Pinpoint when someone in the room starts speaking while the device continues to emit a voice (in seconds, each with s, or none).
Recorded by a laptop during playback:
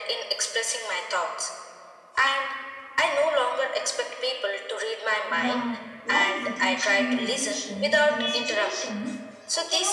5.3 s